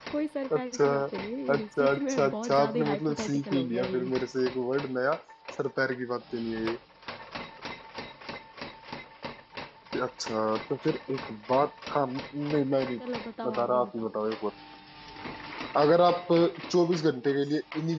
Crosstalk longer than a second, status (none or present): present